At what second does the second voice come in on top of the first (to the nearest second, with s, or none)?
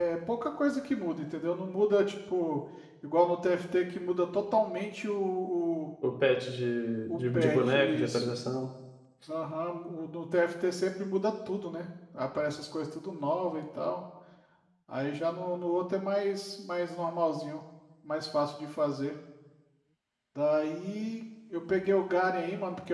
7 s